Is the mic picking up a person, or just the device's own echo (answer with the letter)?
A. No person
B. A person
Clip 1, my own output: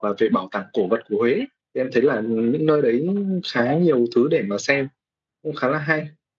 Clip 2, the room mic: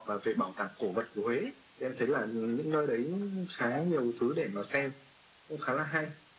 A